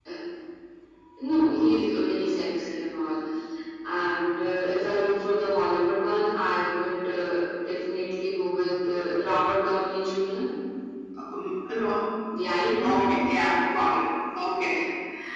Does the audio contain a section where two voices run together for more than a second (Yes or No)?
No